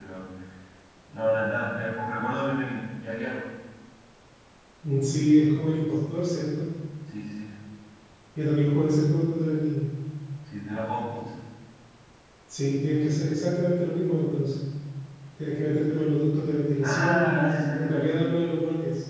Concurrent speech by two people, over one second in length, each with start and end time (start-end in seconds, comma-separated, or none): 16.8-18.2